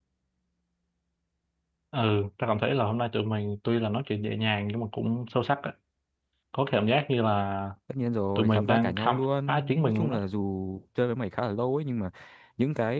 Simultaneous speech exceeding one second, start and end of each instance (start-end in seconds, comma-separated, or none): 8.4-10.2